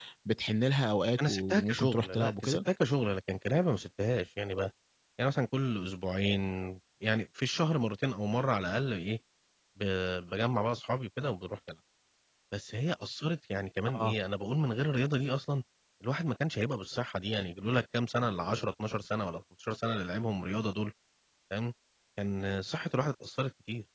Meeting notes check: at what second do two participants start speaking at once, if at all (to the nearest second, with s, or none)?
1 s